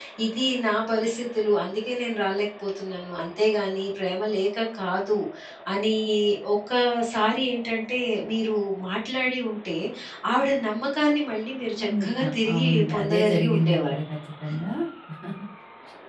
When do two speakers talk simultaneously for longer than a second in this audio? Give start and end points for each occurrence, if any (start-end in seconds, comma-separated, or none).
11.8-13.9